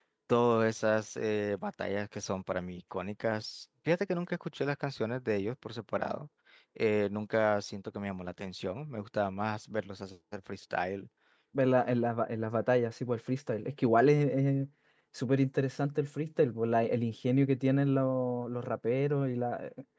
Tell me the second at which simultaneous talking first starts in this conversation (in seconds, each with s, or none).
none